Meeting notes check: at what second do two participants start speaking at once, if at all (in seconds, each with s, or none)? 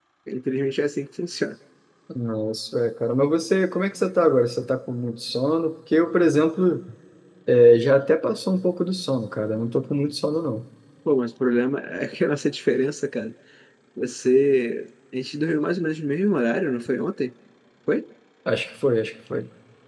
none